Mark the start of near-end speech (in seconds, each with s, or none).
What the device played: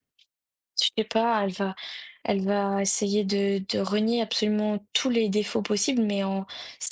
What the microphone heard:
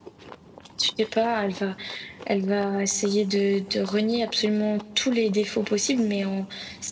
none